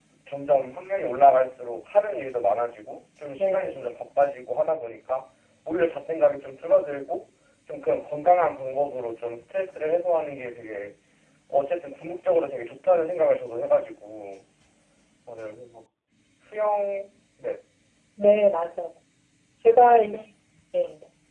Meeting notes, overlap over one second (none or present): none